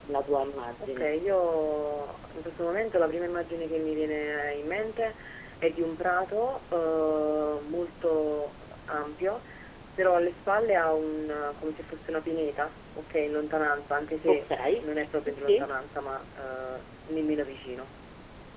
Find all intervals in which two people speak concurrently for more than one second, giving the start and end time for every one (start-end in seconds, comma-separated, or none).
none